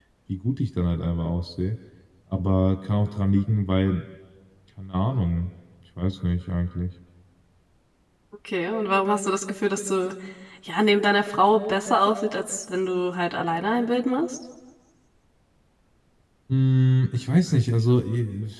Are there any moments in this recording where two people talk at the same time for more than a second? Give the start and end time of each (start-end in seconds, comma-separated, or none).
none